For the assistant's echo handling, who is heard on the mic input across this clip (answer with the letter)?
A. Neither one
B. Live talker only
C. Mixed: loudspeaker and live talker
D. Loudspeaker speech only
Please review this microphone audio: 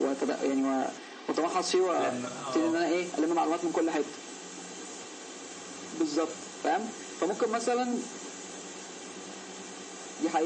C